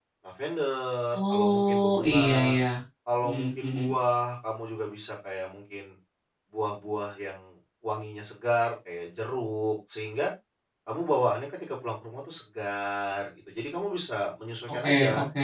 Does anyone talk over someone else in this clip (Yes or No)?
Yes